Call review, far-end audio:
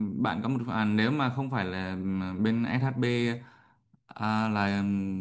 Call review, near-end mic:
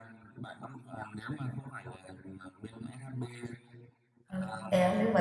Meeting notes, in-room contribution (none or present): present